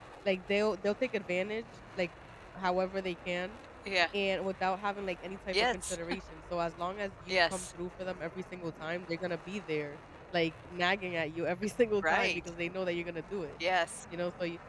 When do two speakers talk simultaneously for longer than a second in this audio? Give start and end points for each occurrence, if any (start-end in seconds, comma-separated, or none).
none